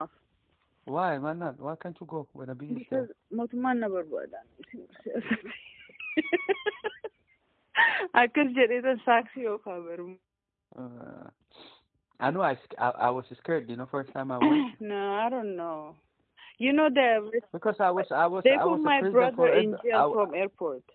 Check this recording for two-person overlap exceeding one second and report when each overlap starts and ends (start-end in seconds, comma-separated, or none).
18.4-20.2